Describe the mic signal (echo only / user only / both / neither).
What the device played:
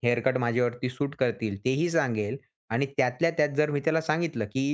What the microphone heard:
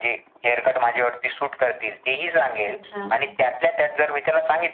both